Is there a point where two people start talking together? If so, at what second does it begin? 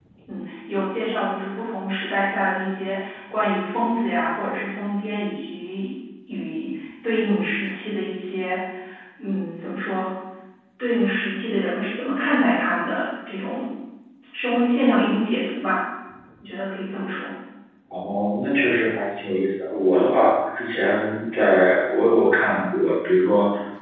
none

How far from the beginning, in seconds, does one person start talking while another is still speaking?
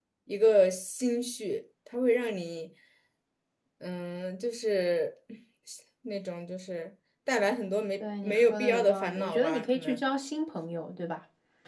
8.0 s

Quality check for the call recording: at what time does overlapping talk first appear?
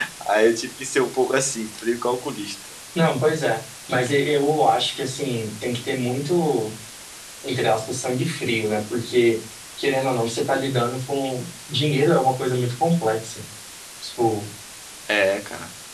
none

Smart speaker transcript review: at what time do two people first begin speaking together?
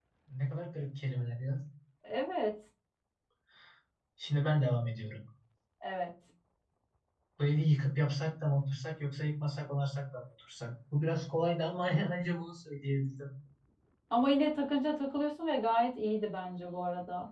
none

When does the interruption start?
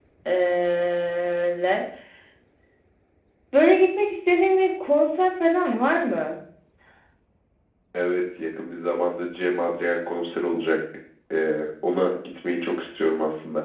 none

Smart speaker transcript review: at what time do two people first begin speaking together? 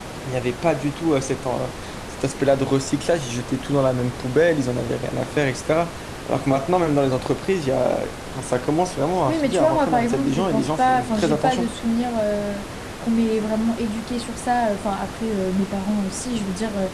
9.3 s

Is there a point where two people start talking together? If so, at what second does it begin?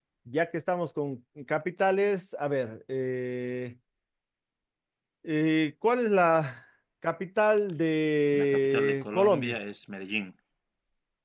8.3 s

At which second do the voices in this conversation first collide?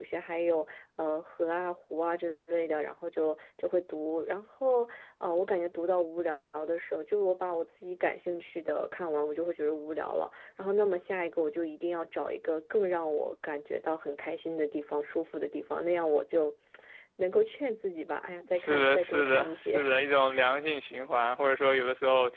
18.5 s

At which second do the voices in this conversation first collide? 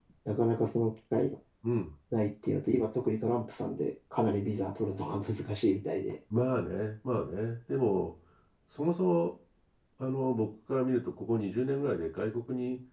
none

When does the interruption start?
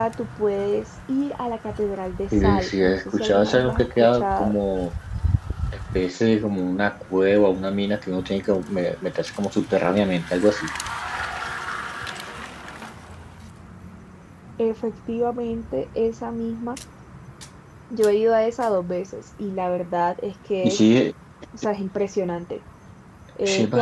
2.3 s

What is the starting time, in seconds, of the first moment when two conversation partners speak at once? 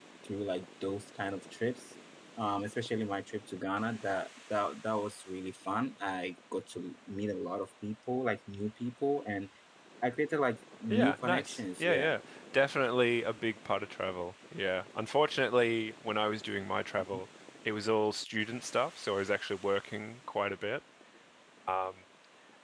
10.9 s

